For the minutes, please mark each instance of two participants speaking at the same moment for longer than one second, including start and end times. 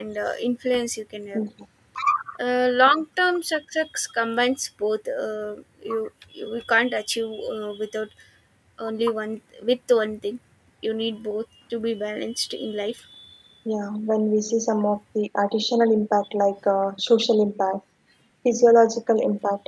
none

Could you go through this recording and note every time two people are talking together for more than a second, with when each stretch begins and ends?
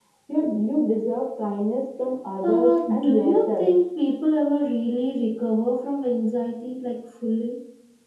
2.4-3.7

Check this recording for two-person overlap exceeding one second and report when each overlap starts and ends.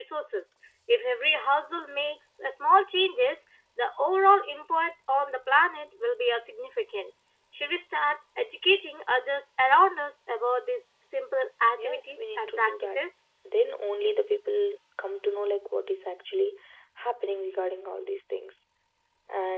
11.8-13.0

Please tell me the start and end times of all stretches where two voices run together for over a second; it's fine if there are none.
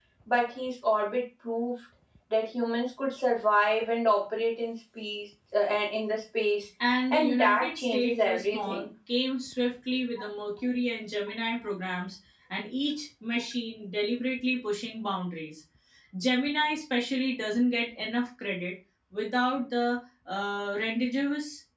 7.1-8.8

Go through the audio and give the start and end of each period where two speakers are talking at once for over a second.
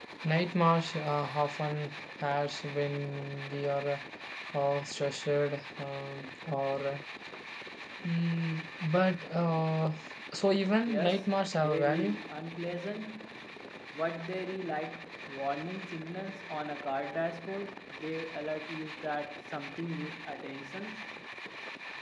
10.9-12.2

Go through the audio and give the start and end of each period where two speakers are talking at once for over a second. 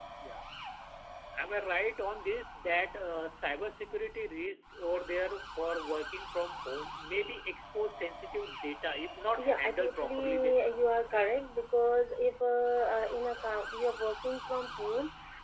9.4-10.6

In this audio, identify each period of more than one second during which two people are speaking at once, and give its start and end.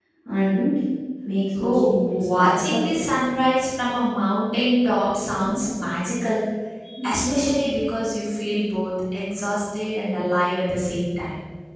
1.6-3.1

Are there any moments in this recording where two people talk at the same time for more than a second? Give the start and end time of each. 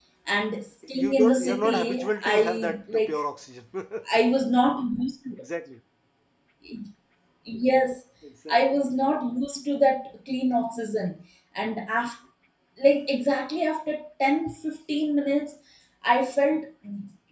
0.9-3.2

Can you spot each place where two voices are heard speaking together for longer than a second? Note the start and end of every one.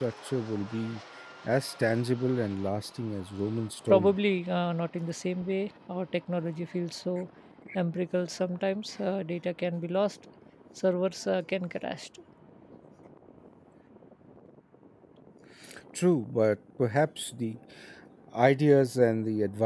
none

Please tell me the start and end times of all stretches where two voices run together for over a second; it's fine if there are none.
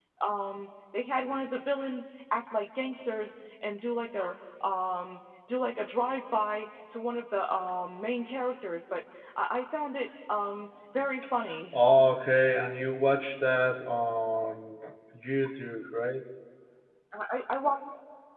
none

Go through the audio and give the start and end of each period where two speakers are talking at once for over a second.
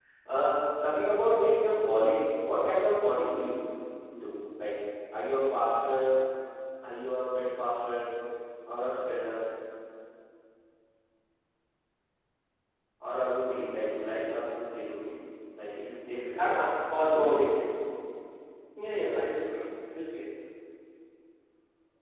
none

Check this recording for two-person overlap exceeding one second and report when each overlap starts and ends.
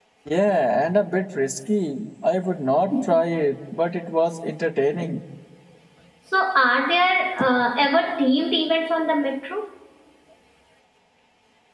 none

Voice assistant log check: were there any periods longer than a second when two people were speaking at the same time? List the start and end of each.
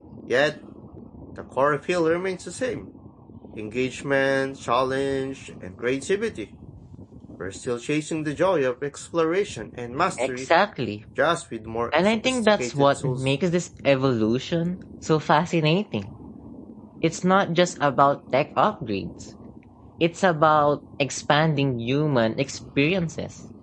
12.1-13.3

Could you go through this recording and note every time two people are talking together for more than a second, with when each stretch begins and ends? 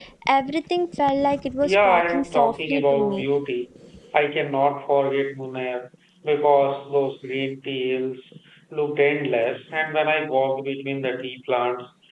1.6-3.2

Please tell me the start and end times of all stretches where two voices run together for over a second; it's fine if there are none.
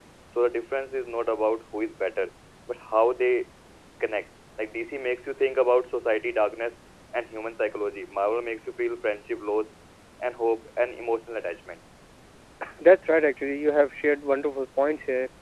none

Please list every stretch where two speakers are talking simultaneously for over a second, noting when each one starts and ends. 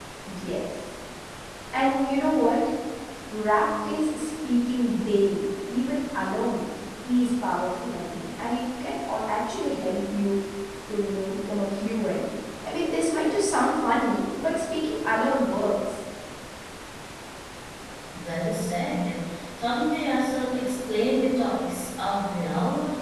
none

